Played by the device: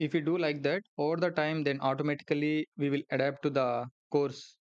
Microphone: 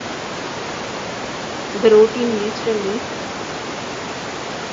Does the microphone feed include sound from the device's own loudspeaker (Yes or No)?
No